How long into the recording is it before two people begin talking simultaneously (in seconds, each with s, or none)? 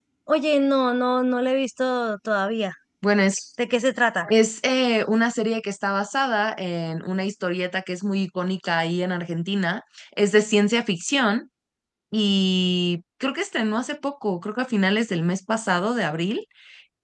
none